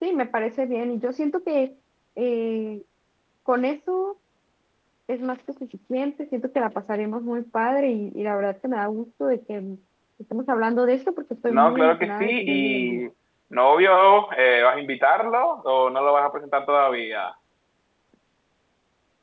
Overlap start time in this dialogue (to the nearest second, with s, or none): 11 s